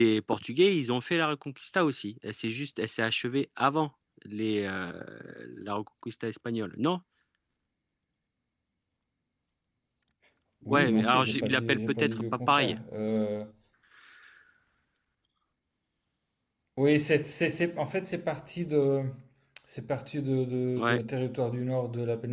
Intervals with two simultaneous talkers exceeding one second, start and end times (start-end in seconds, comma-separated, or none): 10.7-12.8